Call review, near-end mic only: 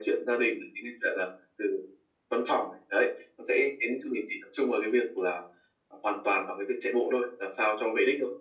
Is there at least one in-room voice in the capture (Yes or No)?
No